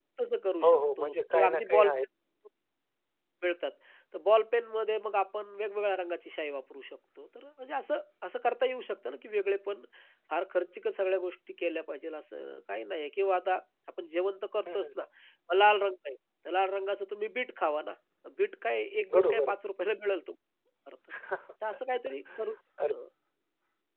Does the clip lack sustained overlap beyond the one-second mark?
No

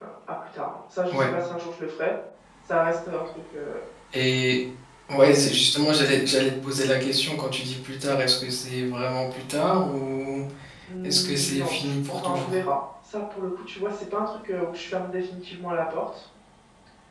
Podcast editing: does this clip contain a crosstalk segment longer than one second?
Yes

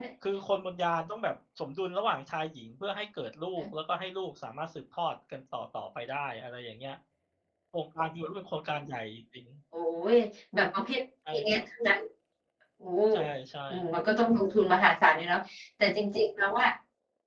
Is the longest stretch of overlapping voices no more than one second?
Yes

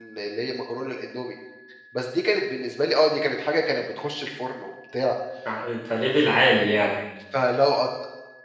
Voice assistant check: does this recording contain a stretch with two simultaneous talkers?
No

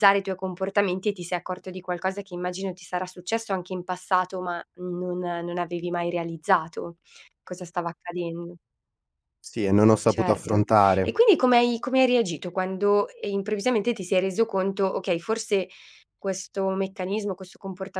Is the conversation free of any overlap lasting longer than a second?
Yes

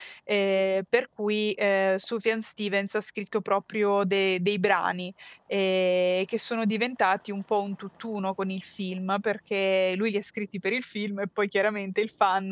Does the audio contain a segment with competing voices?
No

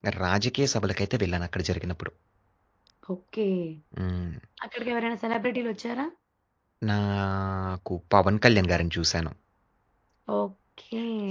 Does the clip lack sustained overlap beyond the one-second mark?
Yes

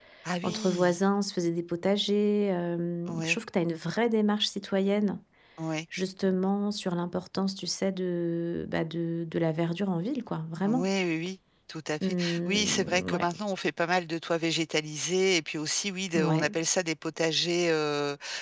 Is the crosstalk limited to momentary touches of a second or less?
No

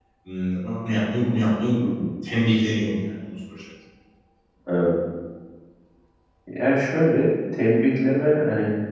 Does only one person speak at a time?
Yes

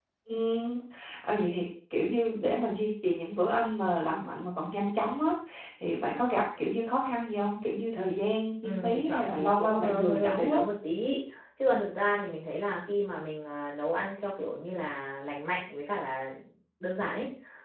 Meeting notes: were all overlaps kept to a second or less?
No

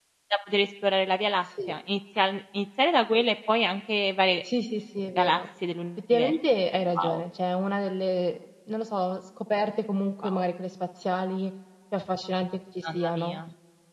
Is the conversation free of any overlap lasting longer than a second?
Yes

